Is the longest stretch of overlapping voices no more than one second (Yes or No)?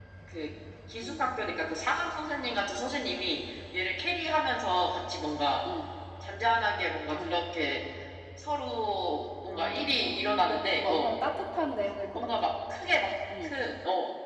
No